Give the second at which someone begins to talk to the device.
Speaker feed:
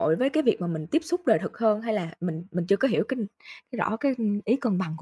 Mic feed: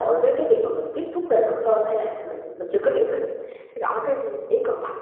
none

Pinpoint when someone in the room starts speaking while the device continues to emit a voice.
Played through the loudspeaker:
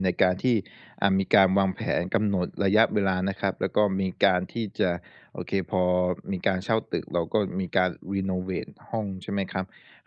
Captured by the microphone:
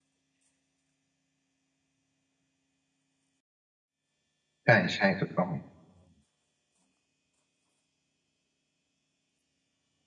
4.6 s

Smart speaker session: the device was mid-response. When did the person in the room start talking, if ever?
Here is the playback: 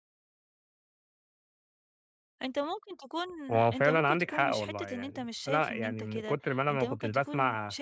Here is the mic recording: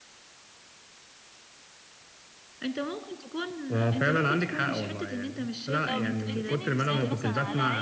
5.8 s

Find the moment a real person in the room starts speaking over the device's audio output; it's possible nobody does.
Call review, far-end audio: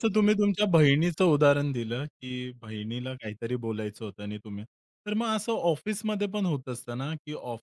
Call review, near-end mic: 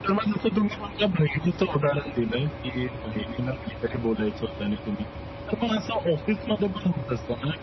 none

